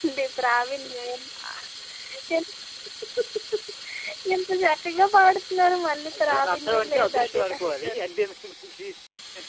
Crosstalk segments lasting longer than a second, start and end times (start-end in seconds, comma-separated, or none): 6.2-8.0